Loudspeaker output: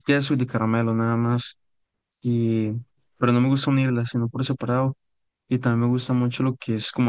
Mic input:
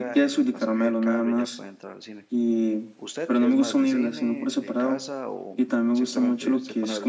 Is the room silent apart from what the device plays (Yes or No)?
No